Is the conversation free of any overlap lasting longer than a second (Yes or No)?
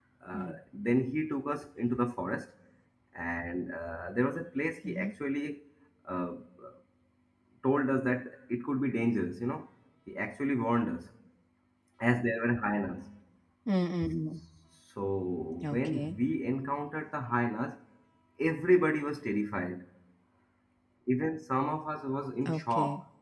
Yes